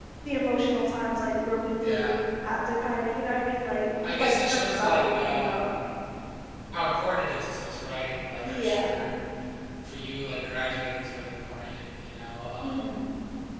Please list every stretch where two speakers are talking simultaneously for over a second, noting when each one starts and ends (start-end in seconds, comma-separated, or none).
4.2-5.7